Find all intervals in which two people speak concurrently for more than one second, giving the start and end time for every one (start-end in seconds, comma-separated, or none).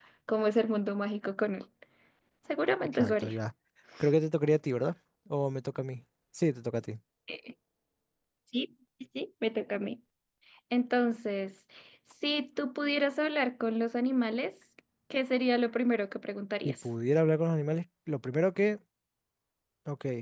none